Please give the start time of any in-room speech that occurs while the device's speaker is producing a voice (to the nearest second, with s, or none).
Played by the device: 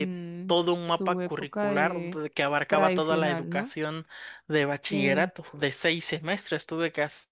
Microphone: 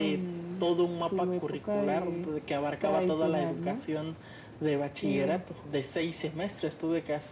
none